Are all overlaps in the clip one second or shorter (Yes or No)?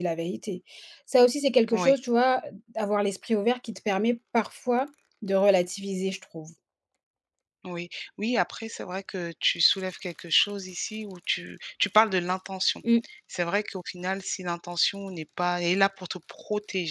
Yes